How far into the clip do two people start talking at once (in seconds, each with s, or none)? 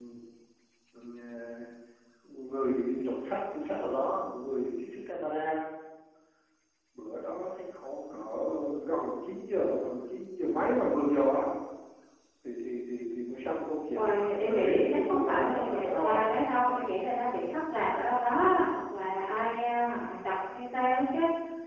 13.9 s